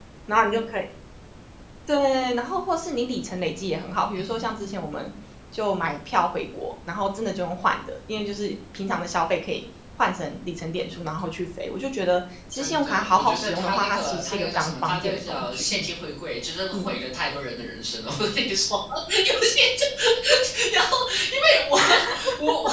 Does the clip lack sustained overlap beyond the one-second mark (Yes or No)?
No